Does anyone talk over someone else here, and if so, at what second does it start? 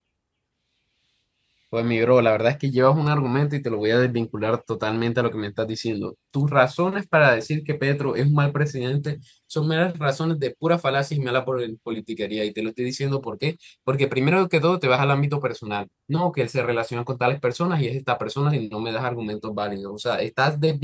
none

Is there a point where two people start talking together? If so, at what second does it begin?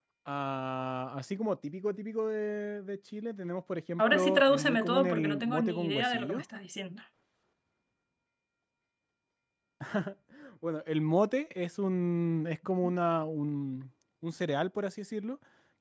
4.0 s

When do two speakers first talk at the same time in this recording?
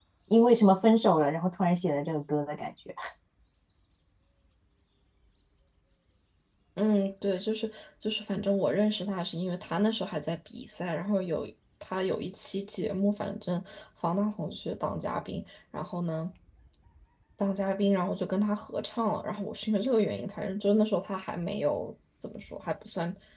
none

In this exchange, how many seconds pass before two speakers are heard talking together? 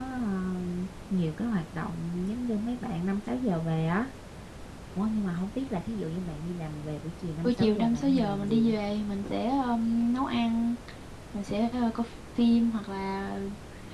7.4 s

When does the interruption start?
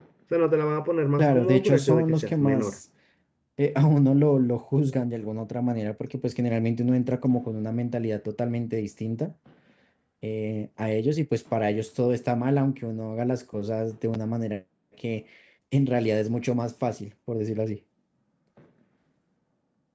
1.2 s

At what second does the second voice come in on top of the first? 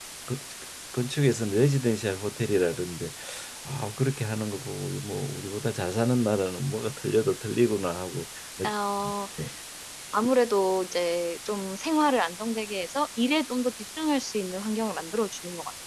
none

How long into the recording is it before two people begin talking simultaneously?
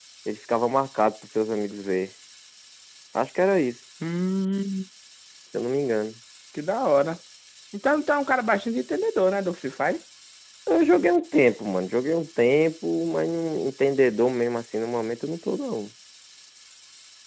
none

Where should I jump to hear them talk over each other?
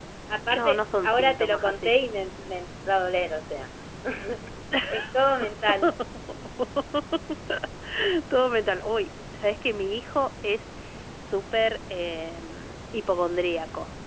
0.5 s

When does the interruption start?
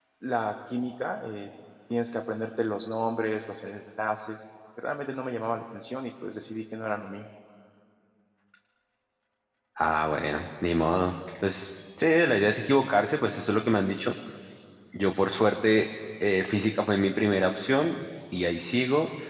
none

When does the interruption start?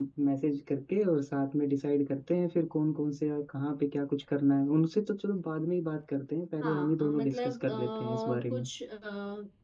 6.6 s

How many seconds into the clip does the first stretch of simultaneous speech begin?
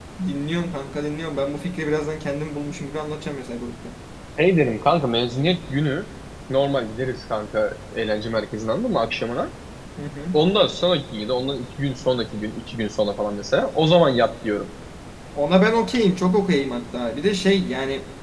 none

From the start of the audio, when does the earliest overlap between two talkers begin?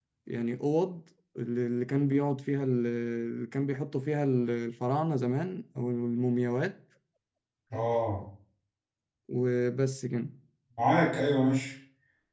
none

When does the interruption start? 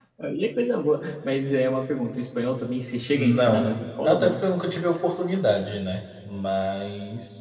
3.1 s

